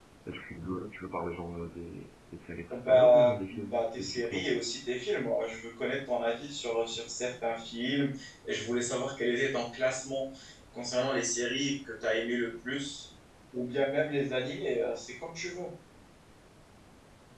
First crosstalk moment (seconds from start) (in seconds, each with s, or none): 2.7 s